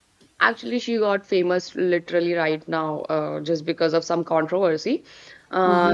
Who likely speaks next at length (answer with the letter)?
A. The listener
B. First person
A